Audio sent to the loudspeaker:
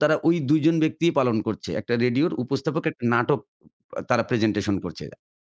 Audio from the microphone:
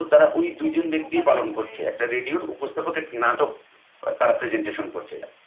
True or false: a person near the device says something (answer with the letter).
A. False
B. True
B